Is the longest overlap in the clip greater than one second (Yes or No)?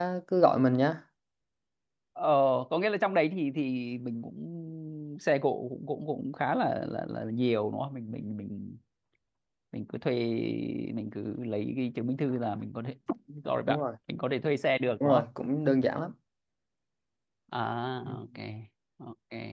No